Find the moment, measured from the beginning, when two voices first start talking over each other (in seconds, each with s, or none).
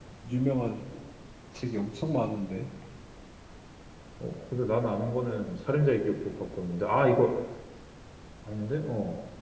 none